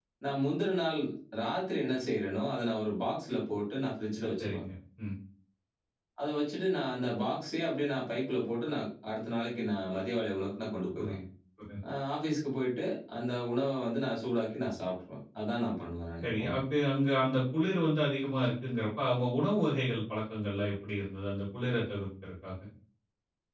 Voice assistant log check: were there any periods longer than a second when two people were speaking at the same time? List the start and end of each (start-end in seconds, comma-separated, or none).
none